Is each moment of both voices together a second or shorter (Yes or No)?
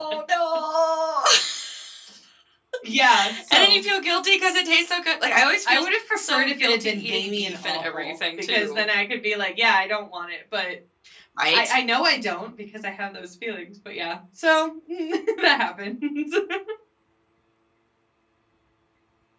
No